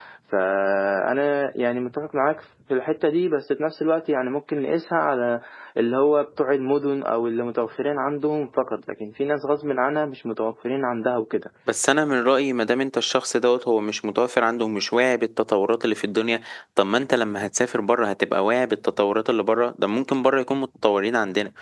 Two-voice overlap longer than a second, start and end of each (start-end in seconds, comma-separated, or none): none